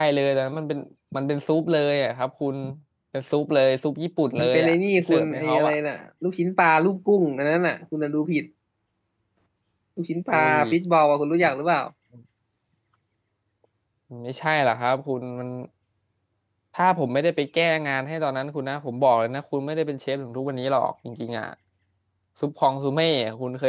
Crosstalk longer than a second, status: present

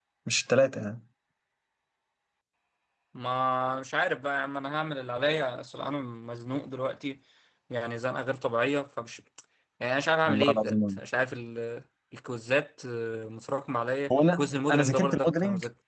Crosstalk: present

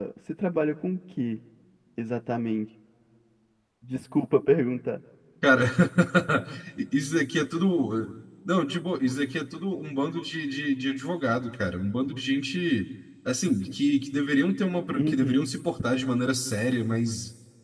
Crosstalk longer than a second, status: none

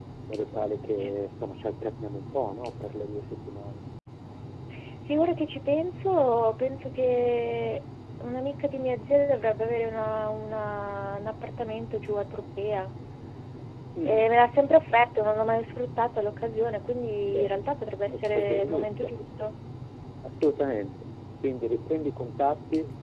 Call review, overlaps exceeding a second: present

